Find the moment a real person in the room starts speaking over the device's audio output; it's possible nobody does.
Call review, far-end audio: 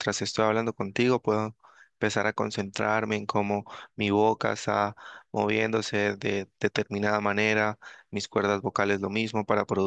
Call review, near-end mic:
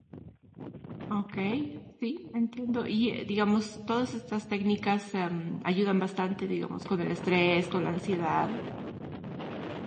1.1 s

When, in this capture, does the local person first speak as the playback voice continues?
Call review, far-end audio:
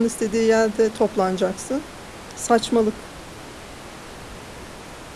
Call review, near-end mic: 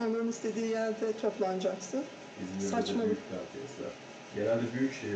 2.4 s

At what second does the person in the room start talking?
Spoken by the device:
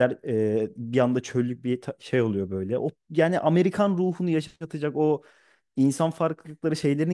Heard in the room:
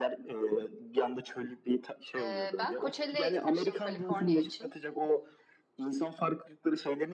2.2 s

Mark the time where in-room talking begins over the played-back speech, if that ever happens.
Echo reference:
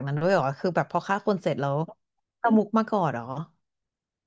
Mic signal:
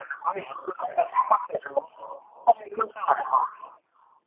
none

